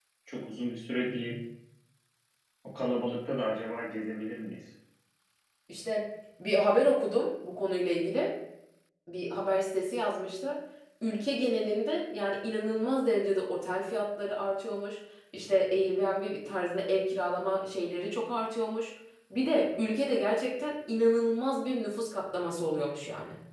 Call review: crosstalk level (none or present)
none